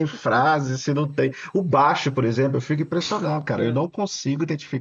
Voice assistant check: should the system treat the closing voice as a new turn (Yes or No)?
No